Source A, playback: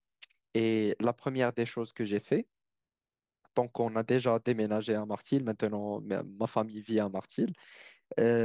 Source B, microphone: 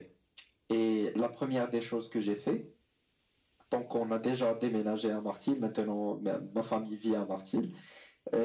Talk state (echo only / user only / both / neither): echo only